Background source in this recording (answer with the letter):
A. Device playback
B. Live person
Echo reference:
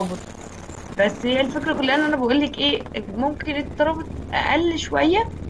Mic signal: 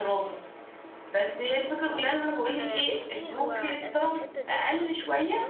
B